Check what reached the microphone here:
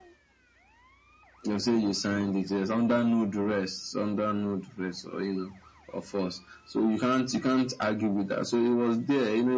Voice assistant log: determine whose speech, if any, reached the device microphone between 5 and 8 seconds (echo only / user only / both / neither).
echo only